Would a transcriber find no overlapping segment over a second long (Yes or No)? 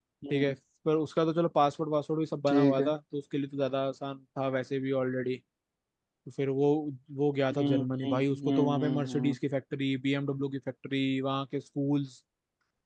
No